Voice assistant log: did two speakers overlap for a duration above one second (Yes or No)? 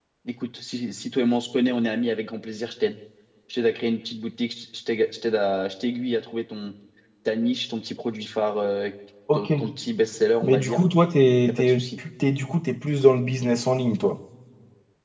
No